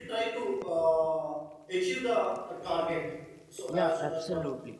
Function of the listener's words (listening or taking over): taking over